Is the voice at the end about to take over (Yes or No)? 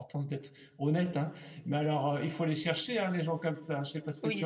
Yes